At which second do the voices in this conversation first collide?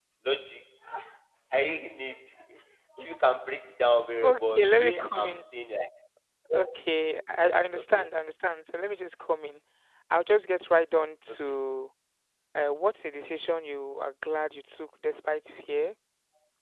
4.2 s

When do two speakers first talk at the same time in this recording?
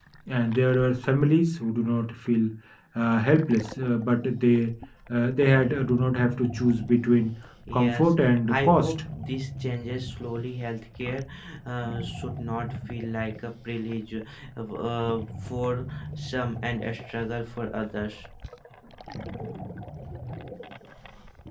7.7 s

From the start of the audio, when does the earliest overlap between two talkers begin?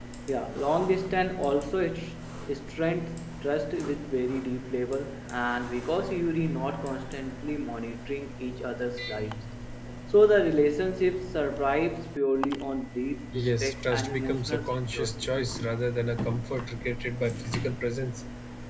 13.3 s

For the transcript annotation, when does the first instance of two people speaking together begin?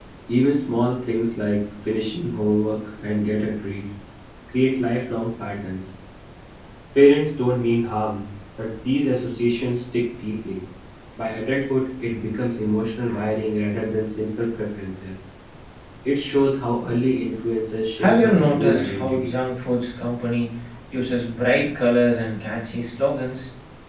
18.0 s

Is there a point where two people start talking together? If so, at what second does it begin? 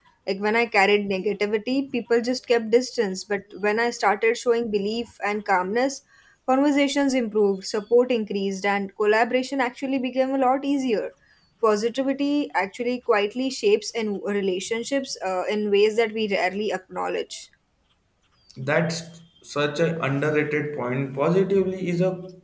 none

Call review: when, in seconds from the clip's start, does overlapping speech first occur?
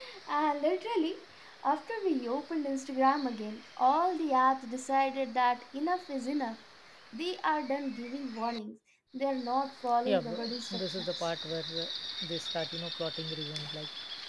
10.0 s

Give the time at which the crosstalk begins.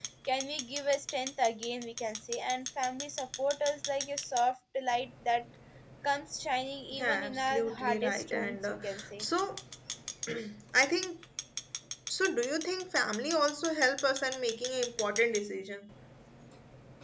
6.9 s

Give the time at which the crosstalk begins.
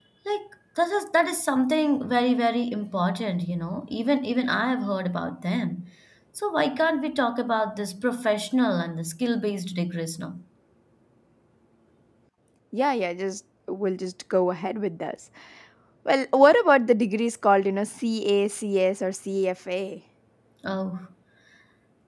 none

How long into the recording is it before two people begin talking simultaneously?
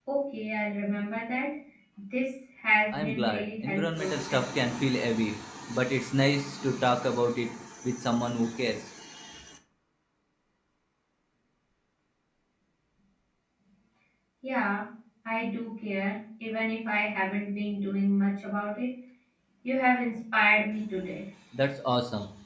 2.9 s

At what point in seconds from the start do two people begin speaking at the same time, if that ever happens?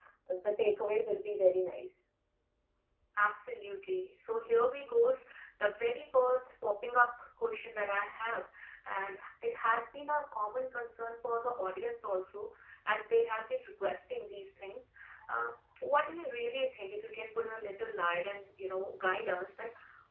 none

